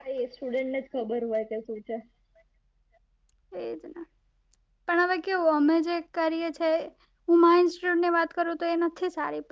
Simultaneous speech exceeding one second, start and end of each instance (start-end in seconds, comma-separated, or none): none